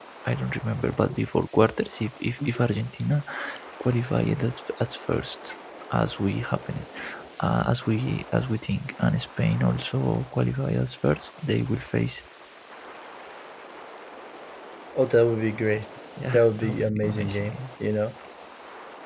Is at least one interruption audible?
Yes, from 16.3 s

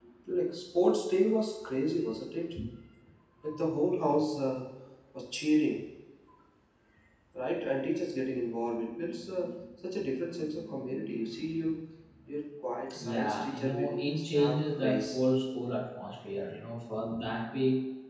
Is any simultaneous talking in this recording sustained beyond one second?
Yes, from 13.0 s

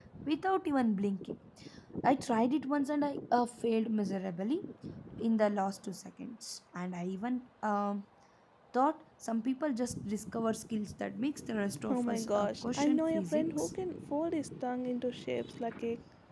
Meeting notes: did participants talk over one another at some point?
Yes, from 11.7 s

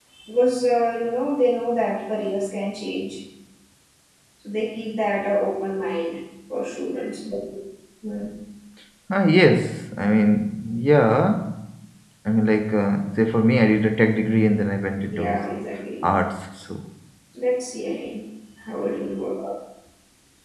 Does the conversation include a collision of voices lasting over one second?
No

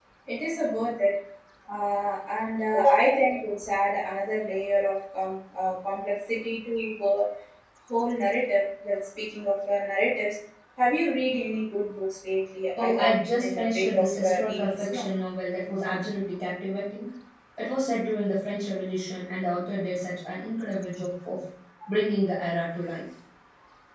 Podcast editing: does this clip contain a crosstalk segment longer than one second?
Yes, from 12.8 s

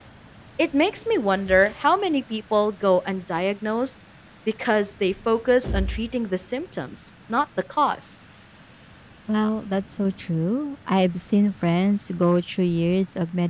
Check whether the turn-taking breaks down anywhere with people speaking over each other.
No

